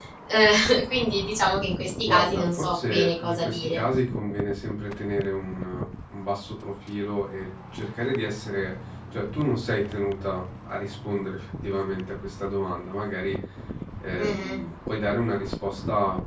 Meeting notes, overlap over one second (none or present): present